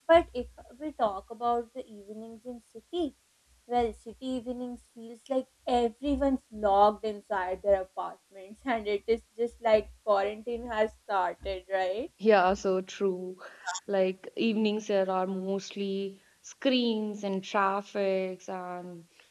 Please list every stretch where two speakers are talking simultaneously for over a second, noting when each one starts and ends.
none

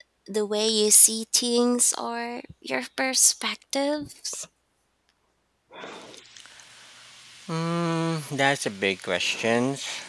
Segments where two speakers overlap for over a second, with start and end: none

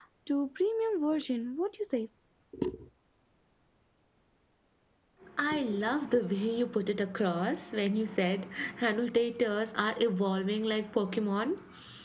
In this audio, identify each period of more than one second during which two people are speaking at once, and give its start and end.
none

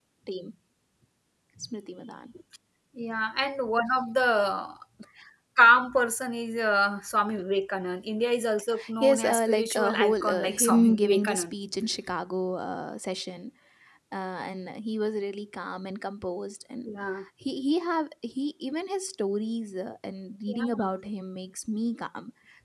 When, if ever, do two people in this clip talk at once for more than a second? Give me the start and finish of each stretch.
9.0-11.5

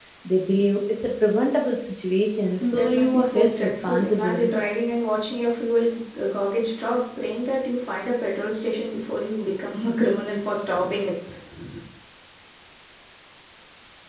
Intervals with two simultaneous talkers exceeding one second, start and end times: 2.8-4.5

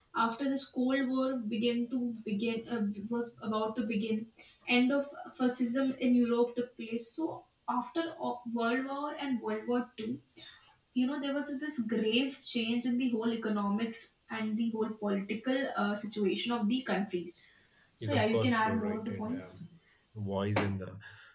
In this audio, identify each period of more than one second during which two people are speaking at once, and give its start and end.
18.0-19.5

